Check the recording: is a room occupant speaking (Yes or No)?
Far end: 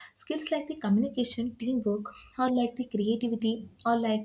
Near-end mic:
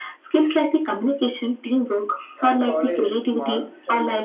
Yes